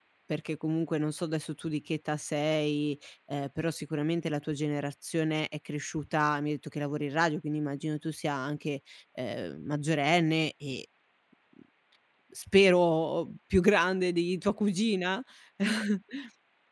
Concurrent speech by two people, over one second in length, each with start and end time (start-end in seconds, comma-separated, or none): none